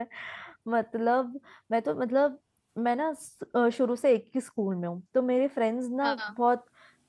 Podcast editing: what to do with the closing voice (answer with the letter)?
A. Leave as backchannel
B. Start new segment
A